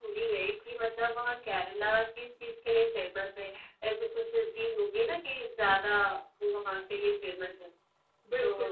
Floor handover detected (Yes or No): Yes